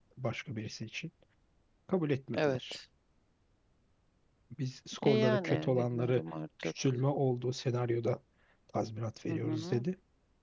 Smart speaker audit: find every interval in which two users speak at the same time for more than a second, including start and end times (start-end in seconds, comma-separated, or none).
5.0-6.2